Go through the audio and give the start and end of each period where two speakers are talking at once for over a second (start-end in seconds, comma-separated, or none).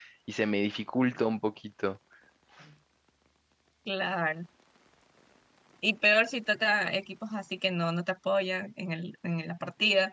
none